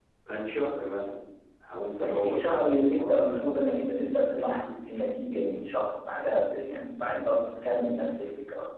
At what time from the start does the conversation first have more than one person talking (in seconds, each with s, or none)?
2.0 s